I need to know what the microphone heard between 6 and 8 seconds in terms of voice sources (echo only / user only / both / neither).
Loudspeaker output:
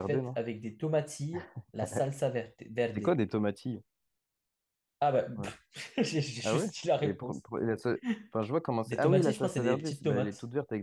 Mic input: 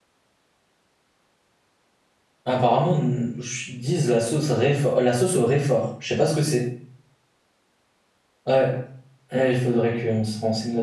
user only